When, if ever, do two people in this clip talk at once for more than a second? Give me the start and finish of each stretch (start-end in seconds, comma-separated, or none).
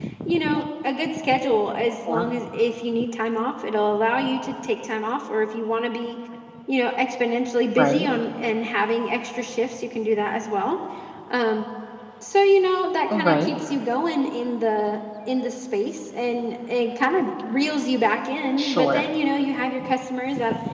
none